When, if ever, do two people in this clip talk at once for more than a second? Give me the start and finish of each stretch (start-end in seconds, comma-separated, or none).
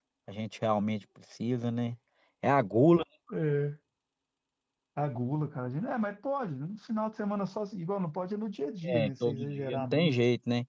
8.8-10.1